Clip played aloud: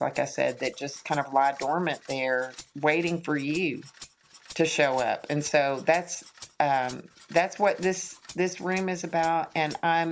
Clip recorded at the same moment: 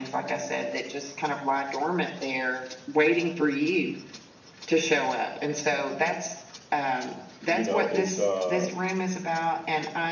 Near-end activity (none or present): present